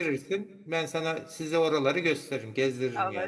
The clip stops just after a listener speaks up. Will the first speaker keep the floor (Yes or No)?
No